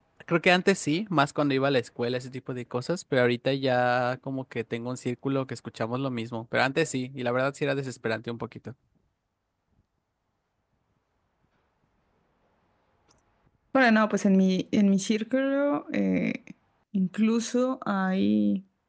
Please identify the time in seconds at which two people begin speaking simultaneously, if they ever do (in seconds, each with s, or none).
none